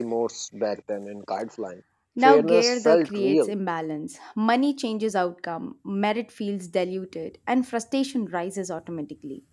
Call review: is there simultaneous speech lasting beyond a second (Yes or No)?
Yes